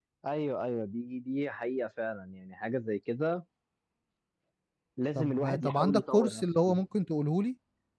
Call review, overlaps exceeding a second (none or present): present